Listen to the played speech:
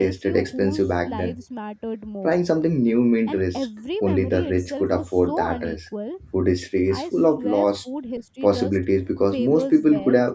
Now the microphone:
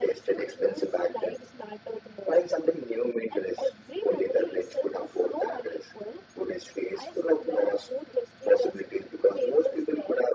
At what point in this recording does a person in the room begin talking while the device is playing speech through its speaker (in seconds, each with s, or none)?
none